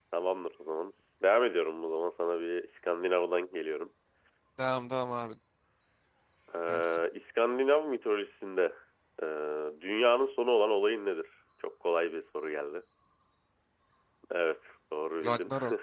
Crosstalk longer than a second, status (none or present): none